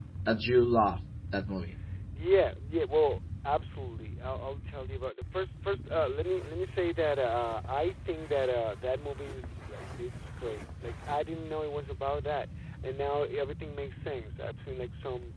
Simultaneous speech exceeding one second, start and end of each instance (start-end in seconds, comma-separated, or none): none